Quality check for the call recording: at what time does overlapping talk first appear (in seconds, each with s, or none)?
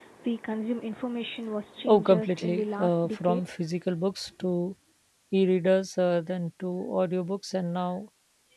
1.9 s